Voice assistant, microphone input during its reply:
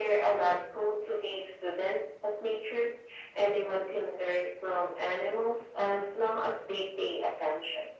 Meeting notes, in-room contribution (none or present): none